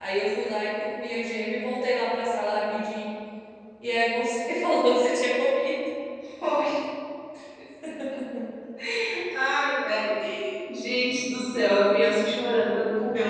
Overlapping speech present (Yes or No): No